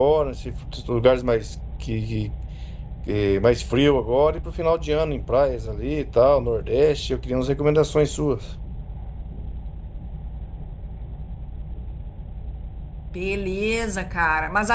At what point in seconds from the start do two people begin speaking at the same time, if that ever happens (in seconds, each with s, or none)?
none